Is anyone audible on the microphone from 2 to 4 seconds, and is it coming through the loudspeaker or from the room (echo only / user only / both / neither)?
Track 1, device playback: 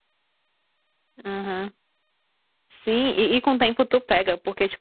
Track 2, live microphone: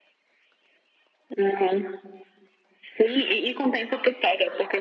echo only